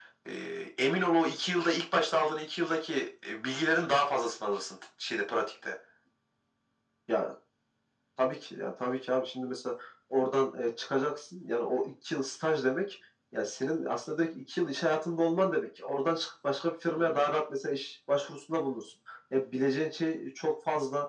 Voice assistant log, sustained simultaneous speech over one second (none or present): none